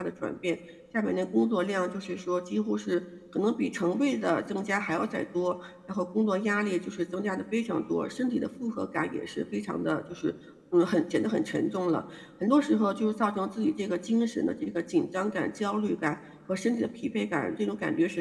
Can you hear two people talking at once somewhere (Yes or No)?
No